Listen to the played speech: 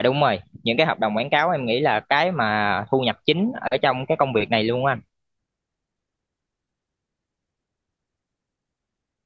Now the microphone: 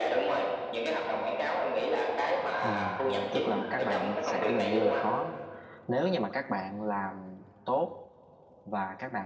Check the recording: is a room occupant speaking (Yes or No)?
Yes